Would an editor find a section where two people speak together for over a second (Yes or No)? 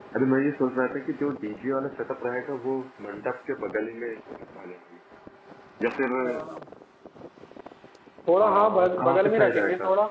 Yes